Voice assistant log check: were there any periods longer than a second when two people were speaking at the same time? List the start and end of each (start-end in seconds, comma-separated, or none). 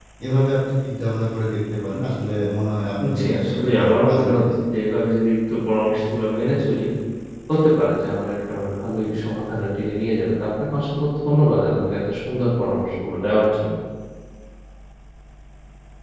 3.2-4.4